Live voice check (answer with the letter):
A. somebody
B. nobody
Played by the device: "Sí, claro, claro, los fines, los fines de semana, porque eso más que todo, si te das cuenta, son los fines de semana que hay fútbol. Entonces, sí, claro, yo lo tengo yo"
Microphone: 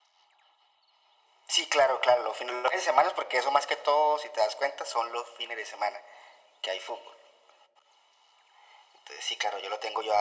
B